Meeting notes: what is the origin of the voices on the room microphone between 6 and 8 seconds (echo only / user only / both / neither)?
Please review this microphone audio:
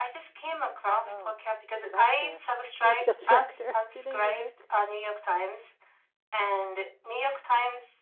echo only